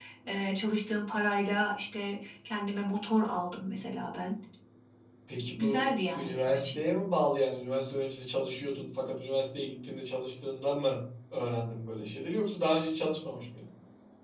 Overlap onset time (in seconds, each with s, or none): 5.6 s